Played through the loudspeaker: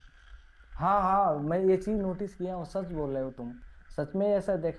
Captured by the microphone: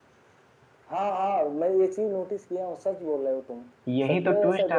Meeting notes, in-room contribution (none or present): present